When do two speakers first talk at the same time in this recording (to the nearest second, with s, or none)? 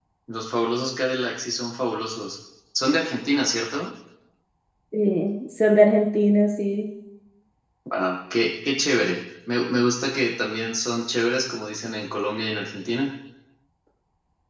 none